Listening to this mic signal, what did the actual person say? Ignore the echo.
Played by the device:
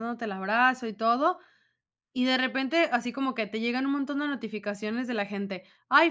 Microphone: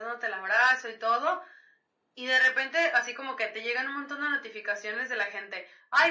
none

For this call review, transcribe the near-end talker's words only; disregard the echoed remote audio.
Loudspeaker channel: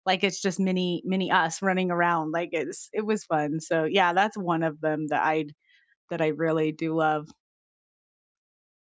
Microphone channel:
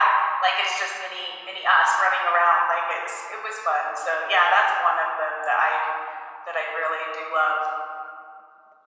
none

